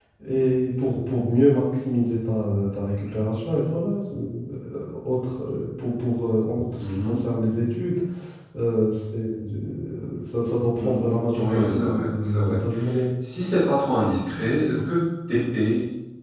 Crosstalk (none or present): present